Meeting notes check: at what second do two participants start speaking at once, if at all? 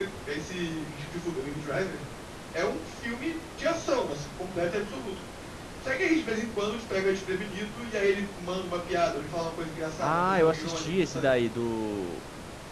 10.0 s

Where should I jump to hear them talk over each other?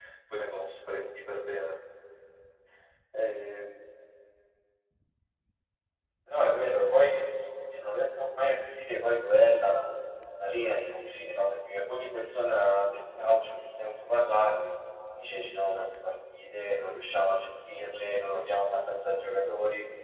none

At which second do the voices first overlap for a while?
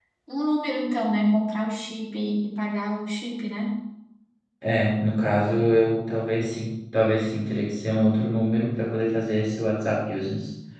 none

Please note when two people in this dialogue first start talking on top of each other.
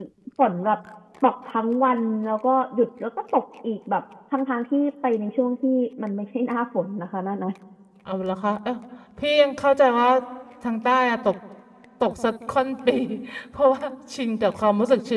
none

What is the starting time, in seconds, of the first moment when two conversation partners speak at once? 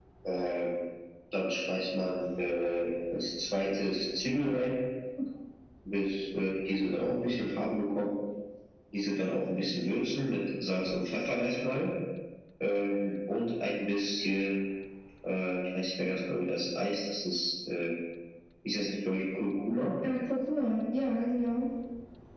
none

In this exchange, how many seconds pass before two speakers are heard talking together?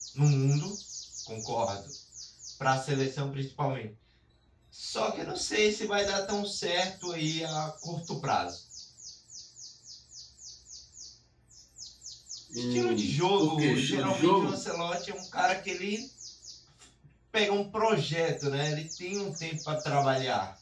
12.6 s

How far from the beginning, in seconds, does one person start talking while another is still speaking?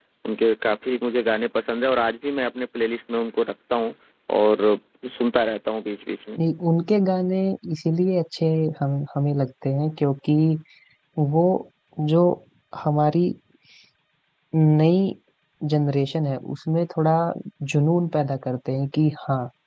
none

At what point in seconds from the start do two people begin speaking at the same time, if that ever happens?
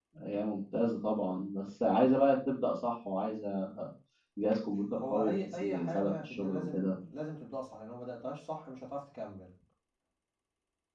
5.0 s

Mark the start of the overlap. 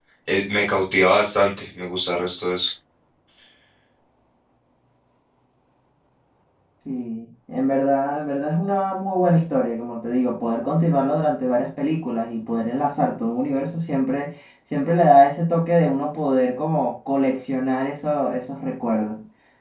none

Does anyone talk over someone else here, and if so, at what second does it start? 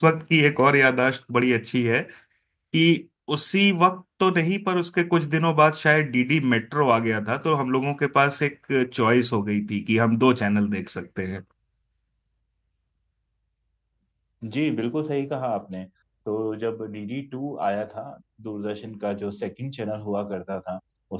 none

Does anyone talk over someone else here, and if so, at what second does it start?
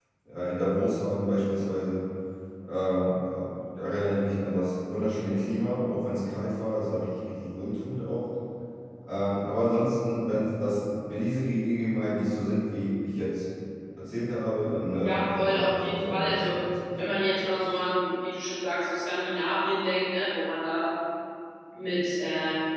15.0 s

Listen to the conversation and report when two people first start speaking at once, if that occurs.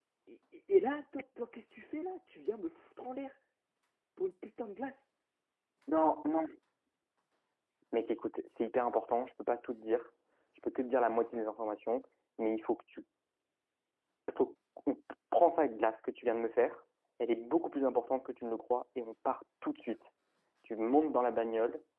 none

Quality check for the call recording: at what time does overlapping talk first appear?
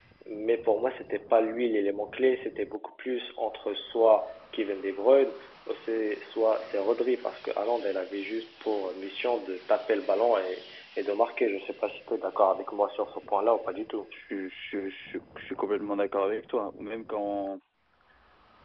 none

